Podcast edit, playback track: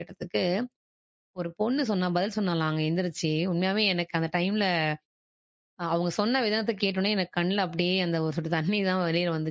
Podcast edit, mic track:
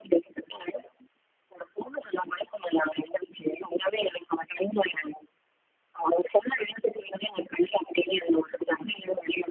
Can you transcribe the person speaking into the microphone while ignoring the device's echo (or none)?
none